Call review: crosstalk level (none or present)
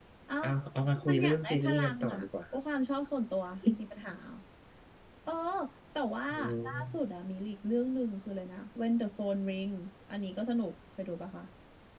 present